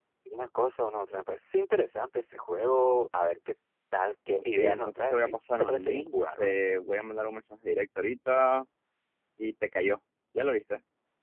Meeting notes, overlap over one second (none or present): present